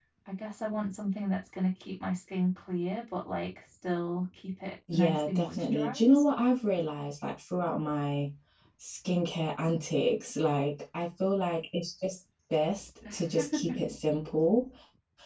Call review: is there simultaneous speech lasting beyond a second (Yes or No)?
Yes